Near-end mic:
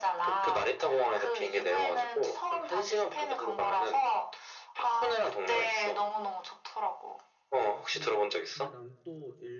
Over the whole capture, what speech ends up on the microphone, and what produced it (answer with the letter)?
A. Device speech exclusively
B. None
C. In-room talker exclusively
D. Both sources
D